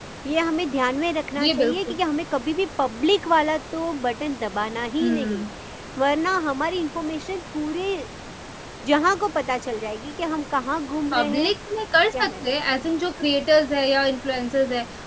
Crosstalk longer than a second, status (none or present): none